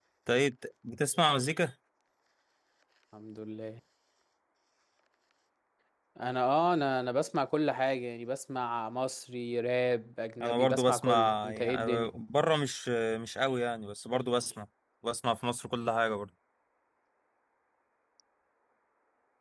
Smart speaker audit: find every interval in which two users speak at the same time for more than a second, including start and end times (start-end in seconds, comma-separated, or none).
10.4-12.1